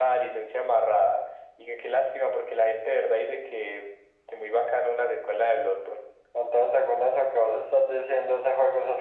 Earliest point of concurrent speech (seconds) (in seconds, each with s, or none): none